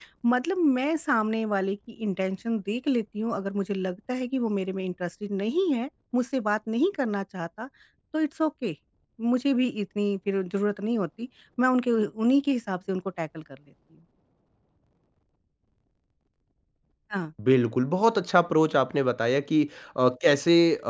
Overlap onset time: none

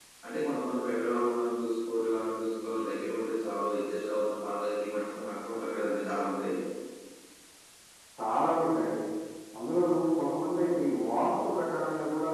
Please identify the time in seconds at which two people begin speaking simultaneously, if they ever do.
none

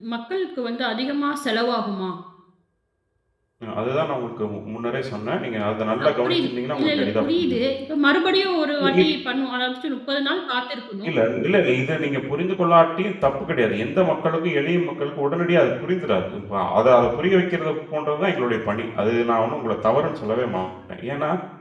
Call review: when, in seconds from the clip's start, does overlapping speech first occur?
6.0 s

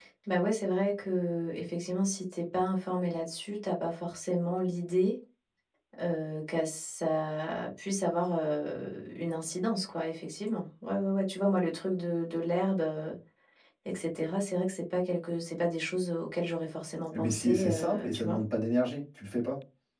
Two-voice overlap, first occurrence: 17.1 s

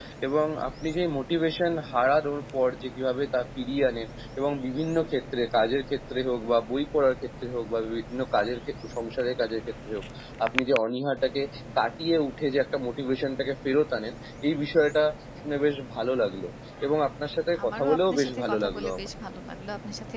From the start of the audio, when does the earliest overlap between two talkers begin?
17.6 s

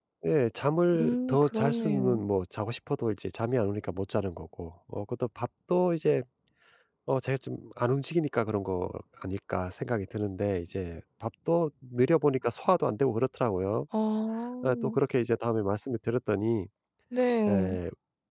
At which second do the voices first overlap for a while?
1.0 s

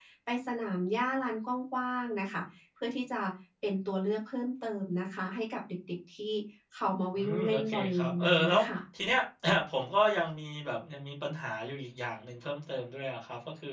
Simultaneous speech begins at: 7.1 s

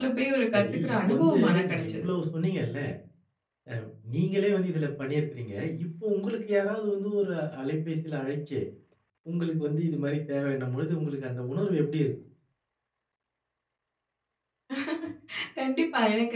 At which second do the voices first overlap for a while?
0.5 s

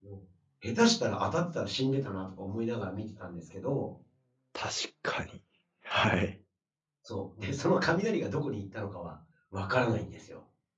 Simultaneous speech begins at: none

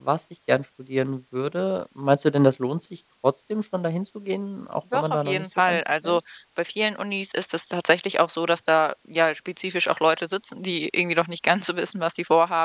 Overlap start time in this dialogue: 4.9 s

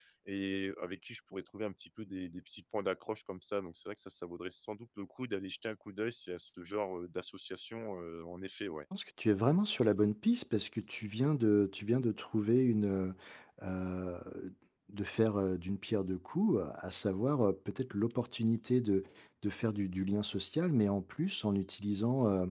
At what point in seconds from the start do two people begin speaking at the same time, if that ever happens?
none

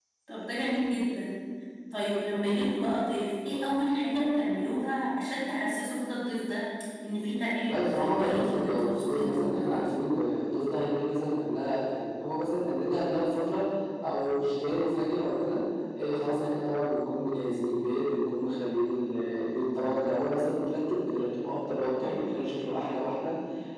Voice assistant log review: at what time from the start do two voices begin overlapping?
7.6 s

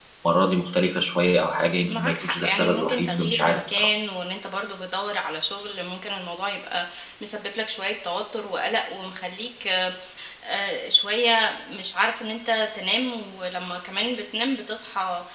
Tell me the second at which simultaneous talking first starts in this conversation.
1.9 s

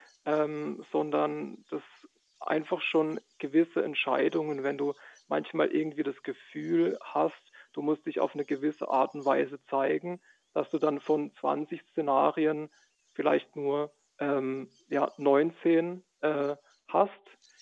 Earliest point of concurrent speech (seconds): none

